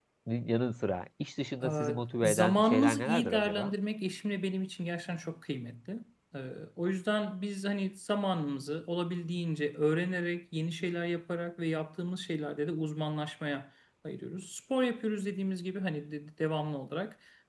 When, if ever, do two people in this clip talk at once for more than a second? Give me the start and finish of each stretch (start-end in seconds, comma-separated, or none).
1.6-3.8